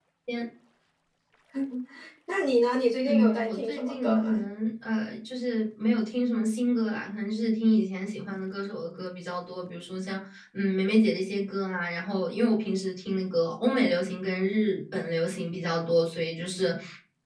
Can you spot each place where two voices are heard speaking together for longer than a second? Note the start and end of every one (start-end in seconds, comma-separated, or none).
3.0-4.4